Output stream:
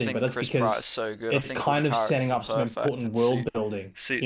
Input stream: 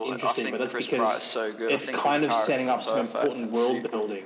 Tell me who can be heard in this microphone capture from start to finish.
echo only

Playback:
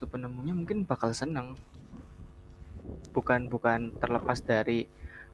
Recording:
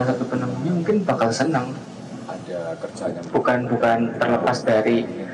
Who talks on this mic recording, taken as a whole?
both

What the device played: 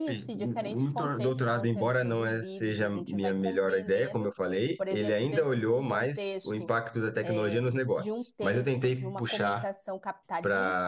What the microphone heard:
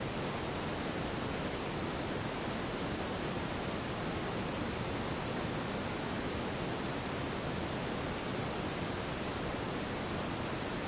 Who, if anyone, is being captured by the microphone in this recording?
neither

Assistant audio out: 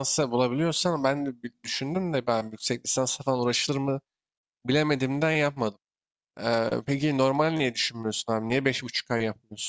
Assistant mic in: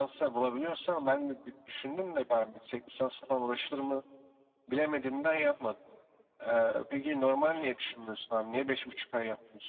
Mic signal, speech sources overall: echo only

